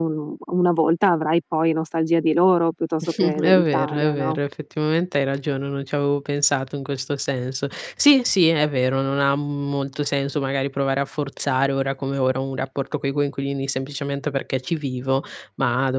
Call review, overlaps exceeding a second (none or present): present